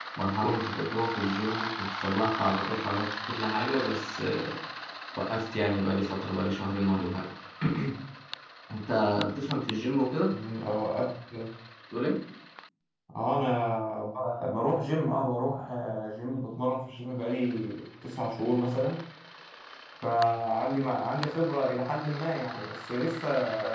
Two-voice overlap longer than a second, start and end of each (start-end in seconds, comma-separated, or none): none